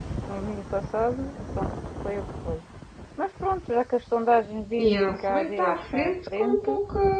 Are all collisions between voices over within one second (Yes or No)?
No